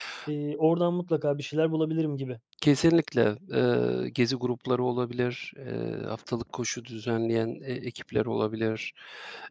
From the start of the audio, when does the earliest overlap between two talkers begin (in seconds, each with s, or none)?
none